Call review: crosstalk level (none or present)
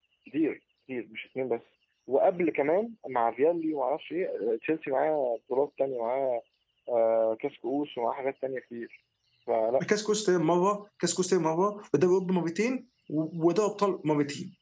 none